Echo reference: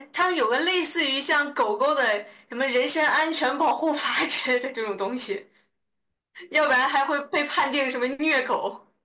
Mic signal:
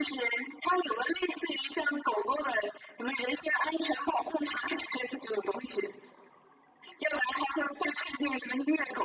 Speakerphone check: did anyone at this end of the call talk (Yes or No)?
No